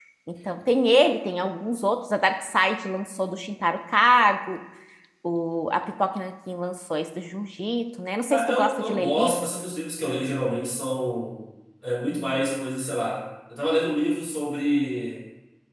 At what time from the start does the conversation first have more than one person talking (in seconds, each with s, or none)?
8.3 s